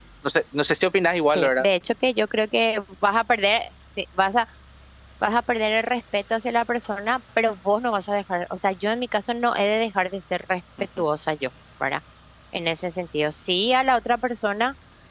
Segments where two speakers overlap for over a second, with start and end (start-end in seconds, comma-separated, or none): none